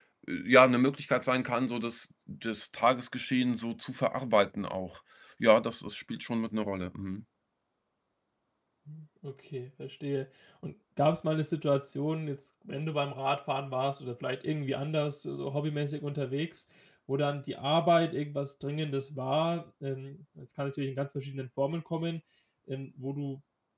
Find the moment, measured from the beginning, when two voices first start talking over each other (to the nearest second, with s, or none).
none